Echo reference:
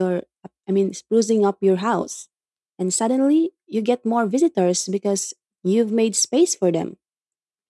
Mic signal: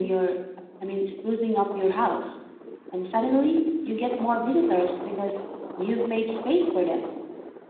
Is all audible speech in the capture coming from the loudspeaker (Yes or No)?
Yes